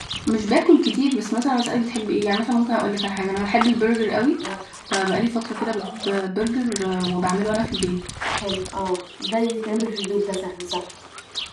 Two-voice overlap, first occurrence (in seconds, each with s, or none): none